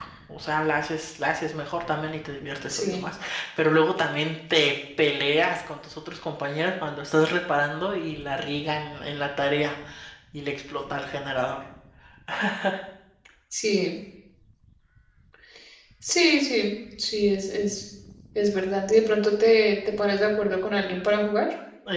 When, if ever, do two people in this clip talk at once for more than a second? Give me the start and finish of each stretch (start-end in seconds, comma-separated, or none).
none